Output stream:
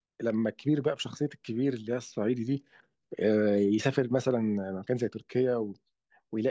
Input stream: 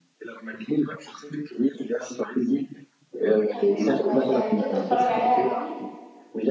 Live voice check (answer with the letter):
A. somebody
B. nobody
A